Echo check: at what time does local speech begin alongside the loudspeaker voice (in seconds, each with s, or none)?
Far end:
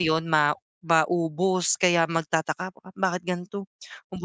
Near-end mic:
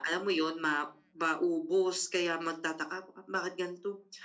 none